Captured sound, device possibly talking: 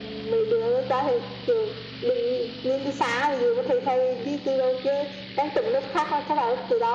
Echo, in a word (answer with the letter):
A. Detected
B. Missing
A